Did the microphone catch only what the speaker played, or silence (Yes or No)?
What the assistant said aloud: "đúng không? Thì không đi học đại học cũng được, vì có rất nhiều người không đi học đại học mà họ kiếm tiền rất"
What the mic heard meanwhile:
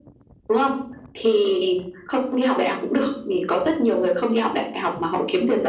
Yes